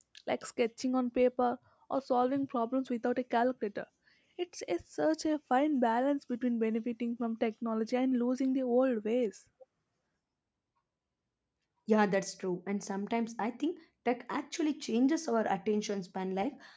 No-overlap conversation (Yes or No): Yes